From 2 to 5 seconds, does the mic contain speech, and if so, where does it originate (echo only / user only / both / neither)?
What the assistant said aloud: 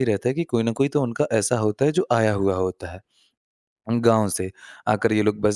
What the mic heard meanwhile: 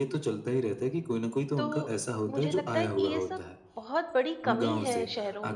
both